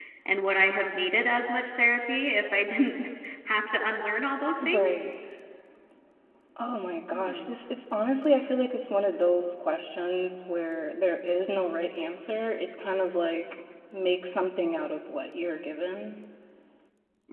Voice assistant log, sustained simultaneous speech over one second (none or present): none